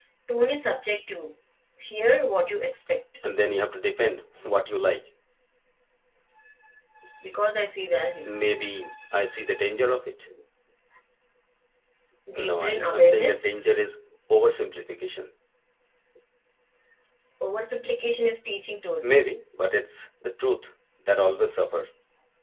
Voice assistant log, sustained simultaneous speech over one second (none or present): present